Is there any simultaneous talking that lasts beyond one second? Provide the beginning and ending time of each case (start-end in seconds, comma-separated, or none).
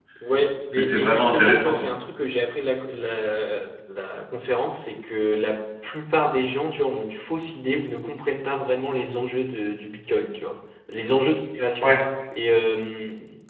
0.8-2.0